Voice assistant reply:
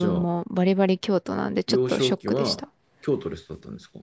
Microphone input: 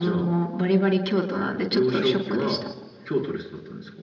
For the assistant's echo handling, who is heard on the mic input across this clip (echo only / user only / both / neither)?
echo only